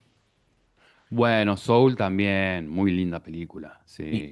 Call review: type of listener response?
taking over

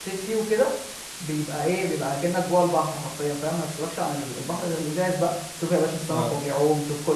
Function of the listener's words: listening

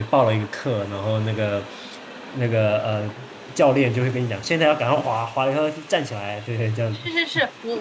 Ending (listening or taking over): taking over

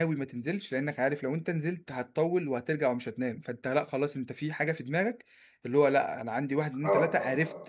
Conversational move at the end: listening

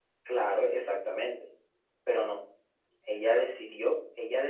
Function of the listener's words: listening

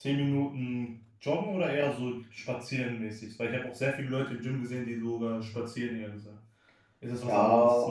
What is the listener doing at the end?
taking over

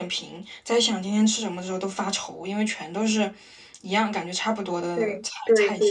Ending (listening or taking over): taking over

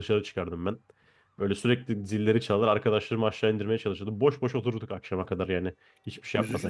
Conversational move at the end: taking over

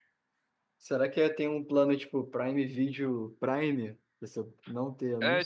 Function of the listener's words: taking over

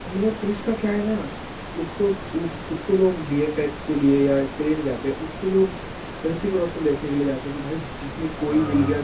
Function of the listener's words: listening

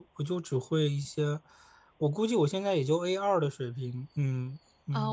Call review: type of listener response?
taking over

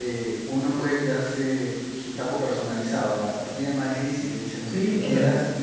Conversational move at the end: taking over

